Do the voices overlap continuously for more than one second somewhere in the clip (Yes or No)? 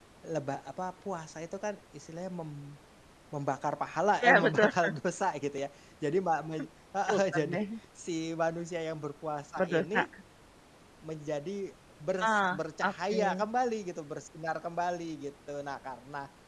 Yes